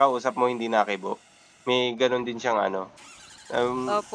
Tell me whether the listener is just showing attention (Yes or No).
No